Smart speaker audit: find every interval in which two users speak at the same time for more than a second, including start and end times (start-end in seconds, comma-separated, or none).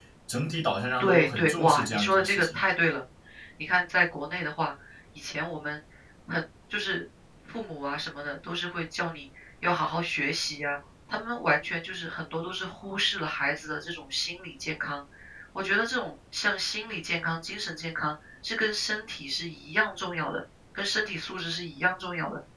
1.0-2.6